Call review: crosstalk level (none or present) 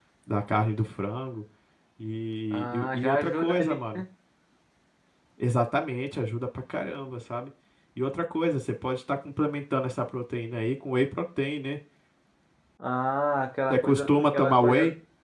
present